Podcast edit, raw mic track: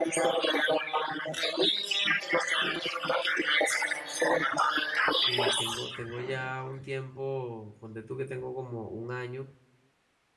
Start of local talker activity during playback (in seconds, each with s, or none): 5.1 s